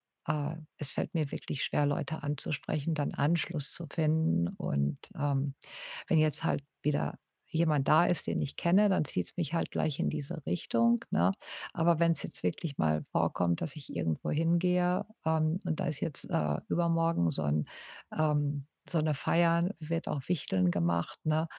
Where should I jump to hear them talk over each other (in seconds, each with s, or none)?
none